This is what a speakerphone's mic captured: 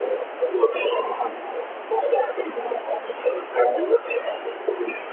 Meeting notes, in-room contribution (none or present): none